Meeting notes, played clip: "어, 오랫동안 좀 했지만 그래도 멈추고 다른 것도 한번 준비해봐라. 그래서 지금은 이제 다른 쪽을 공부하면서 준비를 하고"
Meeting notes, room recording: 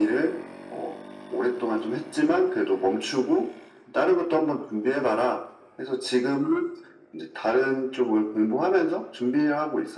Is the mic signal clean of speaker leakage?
No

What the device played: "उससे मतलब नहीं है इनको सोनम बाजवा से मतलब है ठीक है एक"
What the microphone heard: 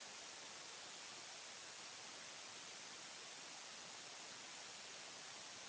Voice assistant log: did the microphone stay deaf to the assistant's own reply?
Yes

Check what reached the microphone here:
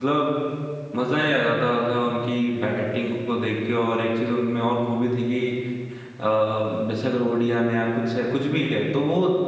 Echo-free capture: Yes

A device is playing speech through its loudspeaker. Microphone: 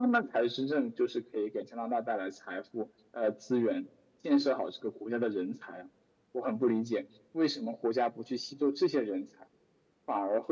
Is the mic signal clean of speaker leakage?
No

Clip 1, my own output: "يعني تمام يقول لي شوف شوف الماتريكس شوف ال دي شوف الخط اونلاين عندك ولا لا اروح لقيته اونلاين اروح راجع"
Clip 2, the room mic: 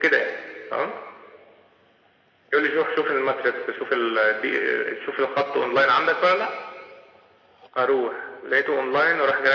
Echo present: Yes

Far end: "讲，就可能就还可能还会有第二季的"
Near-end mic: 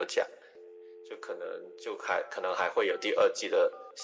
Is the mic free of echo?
No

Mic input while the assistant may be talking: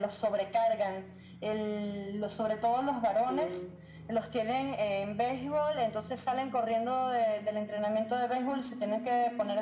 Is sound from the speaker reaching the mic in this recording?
Yes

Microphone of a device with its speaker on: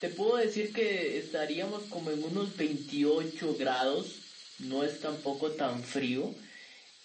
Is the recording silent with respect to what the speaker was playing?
No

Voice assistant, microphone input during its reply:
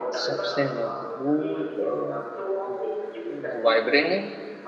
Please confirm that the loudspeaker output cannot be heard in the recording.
No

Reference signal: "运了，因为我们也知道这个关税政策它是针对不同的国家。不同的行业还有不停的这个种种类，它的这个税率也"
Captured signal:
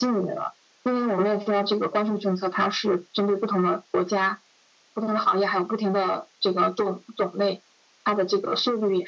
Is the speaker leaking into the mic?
Yes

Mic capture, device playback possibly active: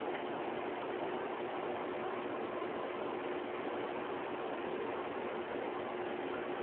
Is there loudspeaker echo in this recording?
No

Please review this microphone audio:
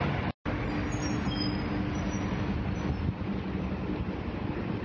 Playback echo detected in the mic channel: No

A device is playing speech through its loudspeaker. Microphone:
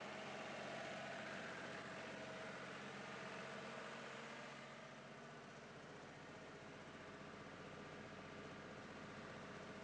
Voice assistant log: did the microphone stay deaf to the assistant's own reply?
Yes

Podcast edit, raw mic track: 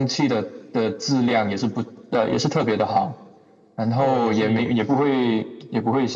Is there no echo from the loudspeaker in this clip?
No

